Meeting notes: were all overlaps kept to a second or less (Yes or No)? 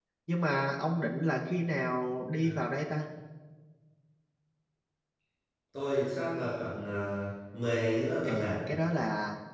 Yes